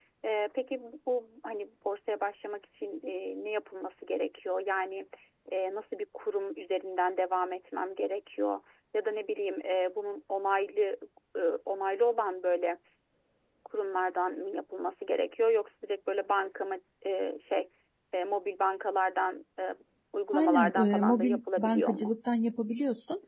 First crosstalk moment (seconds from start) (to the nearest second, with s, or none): 20 s